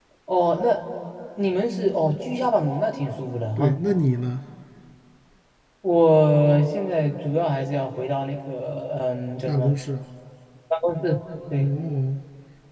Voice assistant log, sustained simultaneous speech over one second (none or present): none